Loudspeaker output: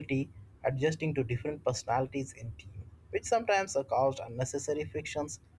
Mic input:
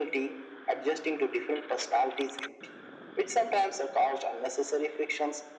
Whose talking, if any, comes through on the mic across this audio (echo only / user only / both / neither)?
echo only